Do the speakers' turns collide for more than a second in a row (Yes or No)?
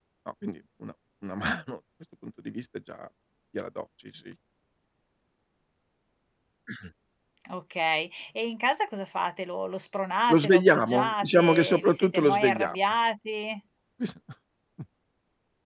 Yes